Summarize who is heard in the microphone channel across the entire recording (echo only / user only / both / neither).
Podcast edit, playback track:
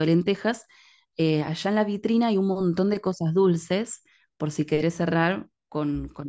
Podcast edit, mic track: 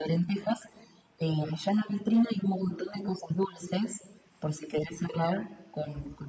echo only